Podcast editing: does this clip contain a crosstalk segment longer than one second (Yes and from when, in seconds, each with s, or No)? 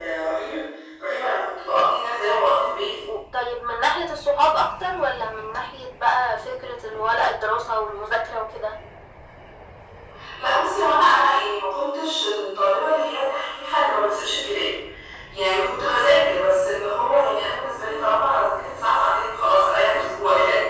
No